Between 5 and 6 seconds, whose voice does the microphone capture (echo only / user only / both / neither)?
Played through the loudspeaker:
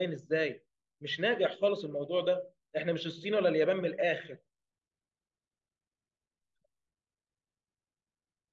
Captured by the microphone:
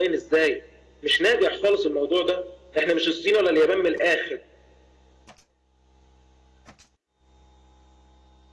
neither